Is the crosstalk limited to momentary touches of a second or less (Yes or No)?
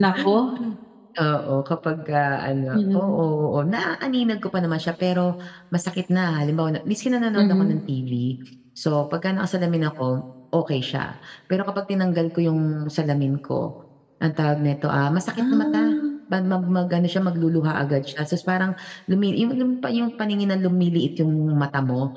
Yes